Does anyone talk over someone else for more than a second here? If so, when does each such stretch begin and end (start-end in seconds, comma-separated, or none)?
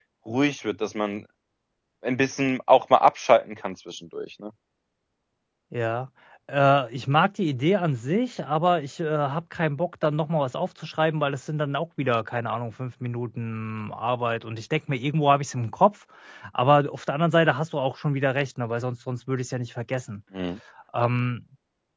none